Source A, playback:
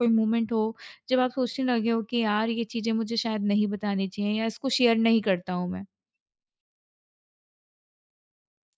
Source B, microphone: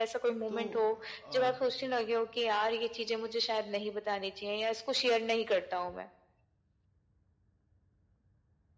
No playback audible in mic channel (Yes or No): No